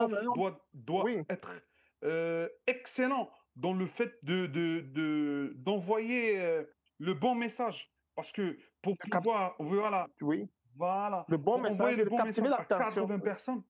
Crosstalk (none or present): present